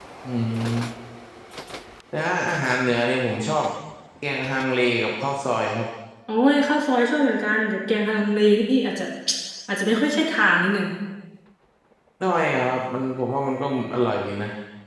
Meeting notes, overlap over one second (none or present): none